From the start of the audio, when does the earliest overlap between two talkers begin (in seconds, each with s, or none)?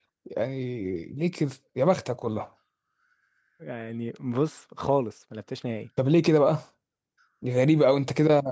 none